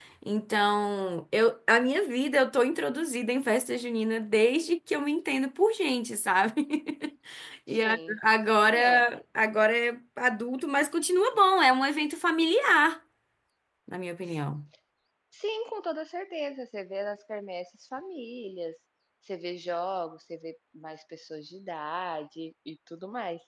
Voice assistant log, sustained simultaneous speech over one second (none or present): none